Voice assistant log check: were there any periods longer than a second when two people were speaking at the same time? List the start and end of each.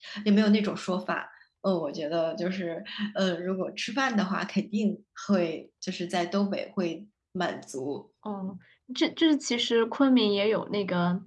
none

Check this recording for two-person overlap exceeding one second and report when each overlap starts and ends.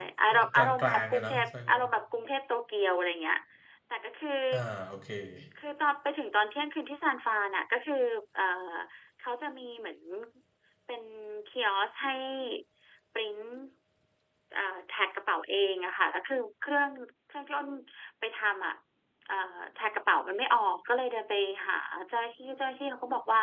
0.5-1.8

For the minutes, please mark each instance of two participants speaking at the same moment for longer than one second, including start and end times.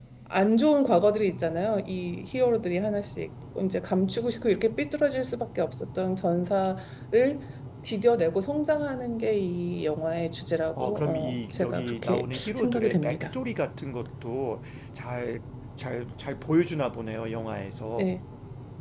10.8-13.3

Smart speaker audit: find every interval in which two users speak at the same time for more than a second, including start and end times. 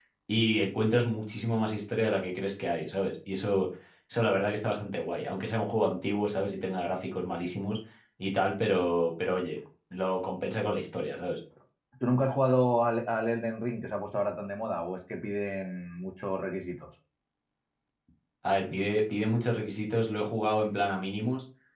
none

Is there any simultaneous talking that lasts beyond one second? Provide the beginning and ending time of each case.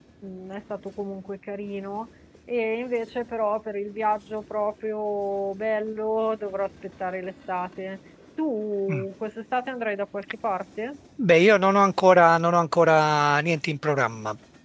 none

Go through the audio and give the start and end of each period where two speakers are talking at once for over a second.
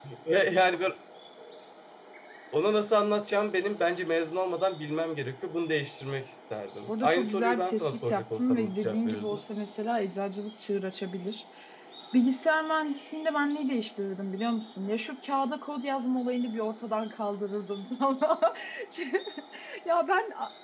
6.9-9.4

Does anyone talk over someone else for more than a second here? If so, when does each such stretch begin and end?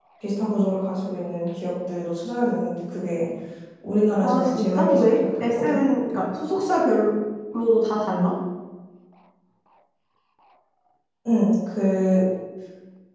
4.2-5.8

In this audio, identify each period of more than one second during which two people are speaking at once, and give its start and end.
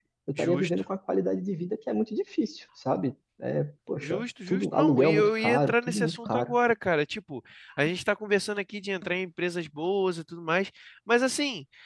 4.0-6.5

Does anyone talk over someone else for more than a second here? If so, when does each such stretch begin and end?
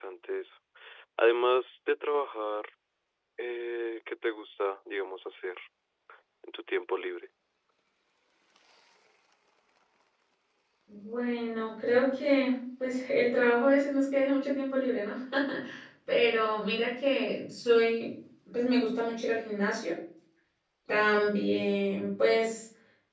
none

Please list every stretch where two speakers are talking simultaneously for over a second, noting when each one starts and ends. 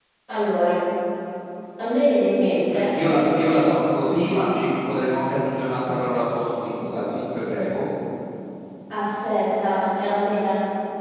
none

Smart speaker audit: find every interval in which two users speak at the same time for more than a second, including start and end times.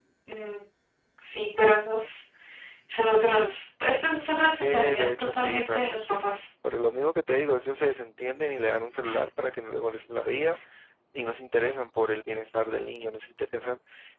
4.5-6.2

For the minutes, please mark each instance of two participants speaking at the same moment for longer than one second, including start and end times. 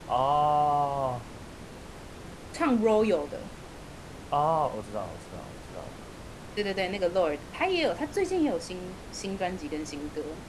none

